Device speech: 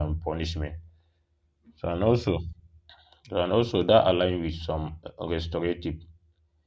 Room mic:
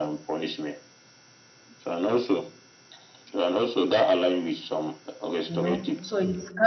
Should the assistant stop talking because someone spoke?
Yes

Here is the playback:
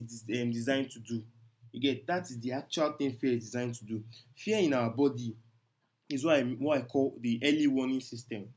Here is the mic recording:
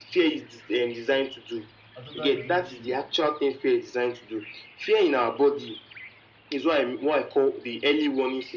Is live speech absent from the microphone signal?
No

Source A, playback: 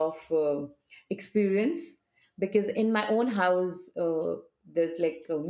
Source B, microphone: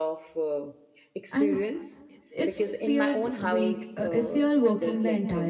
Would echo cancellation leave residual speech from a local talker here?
Yes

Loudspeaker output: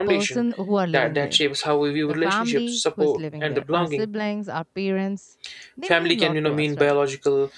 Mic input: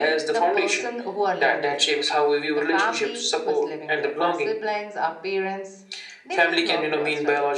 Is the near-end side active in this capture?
No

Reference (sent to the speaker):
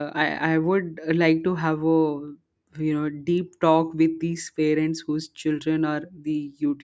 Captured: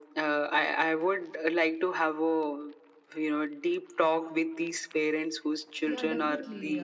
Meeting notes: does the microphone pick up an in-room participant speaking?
Yes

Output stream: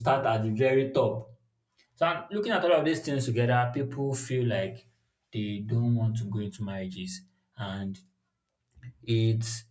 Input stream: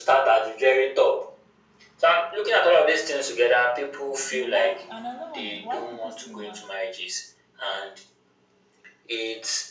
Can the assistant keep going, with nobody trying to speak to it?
No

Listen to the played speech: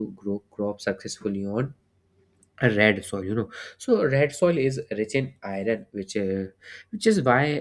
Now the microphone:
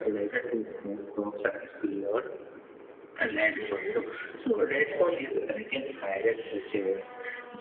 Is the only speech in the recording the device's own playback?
Yes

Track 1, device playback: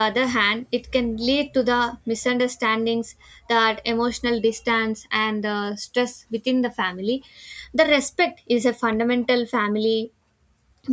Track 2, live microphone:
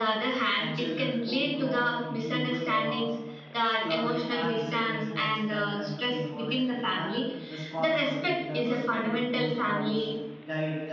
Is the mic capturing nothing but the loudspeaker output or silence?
No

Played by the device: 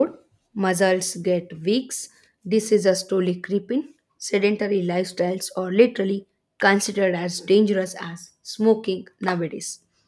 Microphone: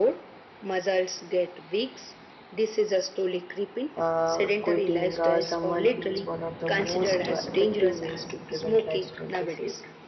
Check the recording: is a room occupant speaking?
Yes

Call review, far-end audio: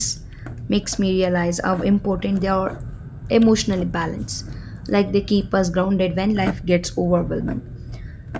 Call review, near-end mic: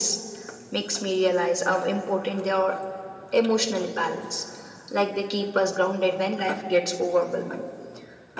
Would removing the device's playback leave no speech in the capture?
Yes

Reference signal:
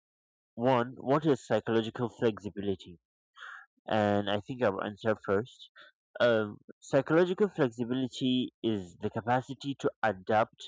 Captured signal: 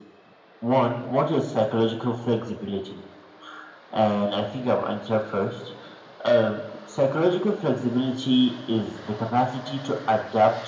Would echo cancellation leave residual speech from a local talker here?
No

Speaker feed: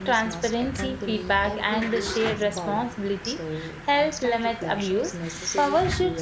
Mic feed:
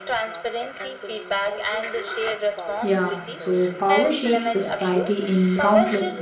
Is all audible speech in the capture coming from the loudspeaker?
No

